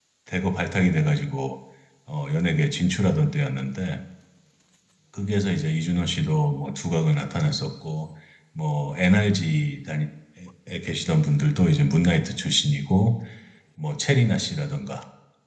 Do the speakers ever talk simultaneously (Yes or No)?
No